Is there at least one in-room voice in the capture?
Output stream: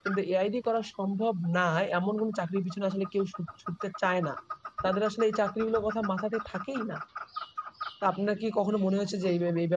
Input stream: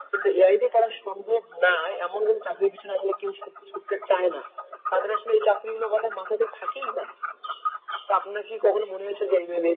No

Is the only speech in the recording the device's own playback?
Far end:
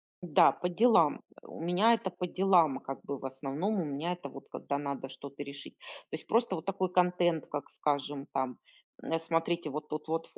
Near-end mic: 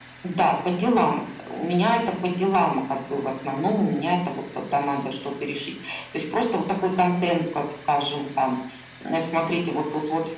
Yes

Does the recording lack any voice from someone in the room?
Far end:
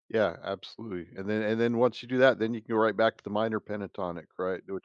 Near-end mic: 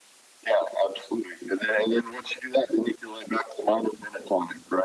Yes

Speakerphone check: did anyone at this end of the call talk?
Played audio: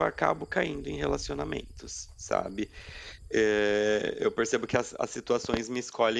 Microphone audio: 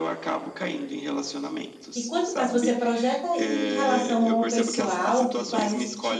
Yes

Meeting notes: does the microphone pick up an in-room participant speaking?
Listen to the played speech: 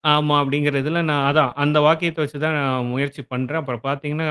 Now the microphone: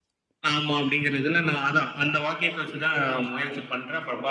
No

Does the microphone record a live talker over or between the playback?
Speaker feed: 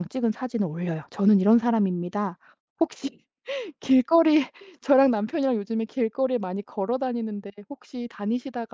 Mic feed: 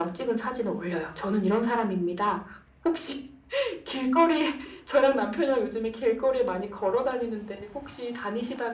No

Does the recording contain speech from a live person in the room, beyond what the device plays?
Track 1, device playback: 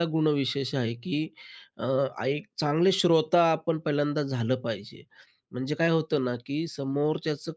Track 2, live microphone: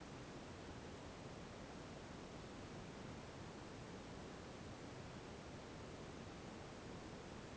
No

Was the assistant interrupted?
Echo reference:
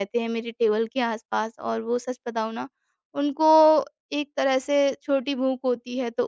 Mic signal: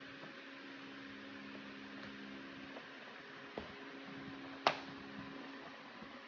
No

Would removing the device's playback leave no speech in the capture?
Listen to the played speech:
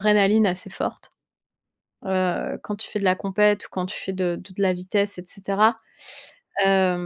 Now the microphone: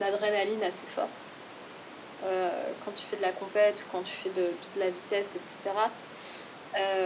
Yes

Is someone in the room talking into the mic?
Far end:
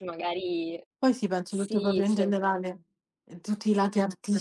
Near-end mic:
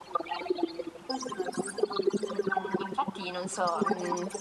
Yes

